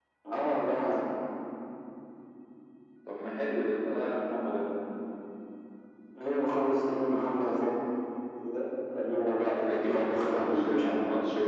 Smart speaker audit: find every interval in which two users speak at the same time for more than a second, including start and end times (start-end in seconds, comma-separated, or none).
9.6-10.9